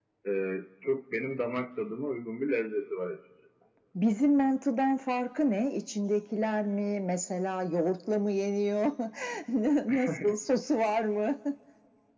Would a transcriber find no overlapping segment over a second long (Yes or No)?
Yes